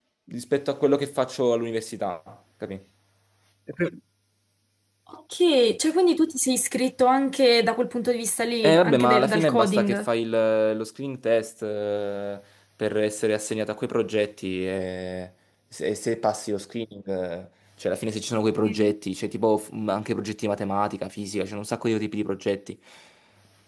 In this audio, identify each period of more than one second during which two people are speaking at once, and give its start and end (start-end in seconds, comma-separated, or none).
8.6-10.1